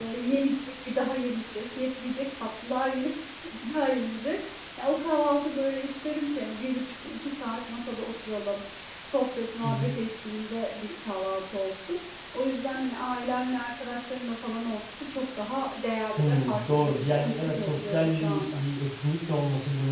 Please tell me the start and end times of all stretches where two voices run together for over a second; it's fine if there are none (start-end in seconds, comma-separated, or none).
16.2-18.6